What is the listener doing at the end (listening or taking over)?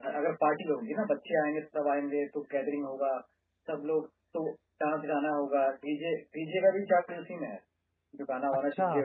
taking over